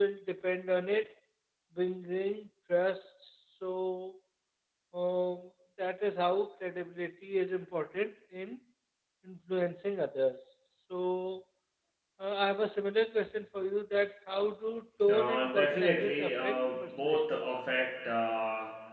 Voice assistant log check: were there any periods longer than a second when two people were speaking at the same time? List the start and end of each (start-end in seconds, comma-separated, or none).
15.1-17.2